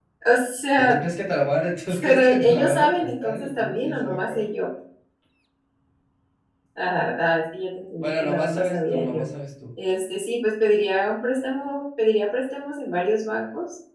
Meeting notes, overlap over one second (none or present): present